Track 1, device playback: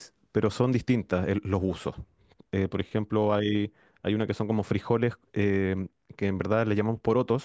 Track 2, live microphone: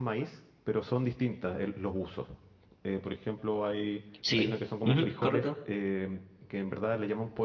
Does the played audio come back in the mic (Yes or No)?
Yes